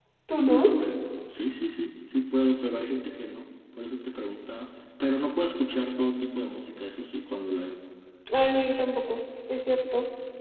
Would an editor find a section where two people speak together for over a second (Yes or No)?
No